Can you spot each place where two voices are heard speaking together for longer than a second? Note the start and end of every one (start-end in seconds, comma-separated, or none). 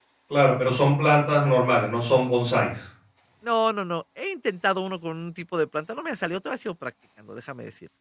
none